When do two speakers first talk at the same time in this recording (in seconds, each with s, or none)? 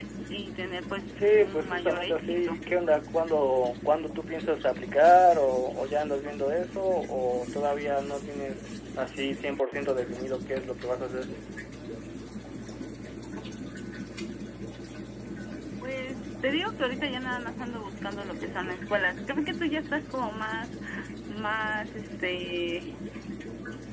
1.2 s